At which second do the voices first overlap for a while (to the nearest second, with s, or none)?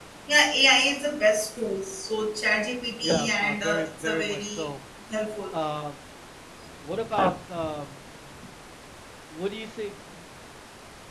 3 s